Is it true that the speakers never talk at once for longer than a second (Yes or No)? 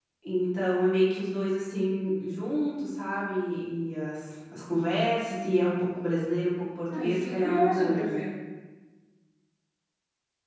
No